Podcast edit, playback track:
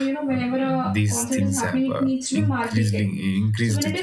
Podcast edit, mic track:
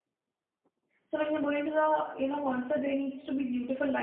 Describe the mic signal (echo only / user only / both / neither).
user only